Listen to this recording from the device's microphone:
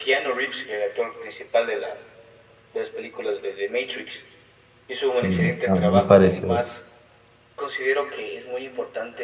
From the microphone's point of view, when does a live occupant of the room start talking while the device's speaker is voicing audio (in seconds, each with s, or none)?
5.1 s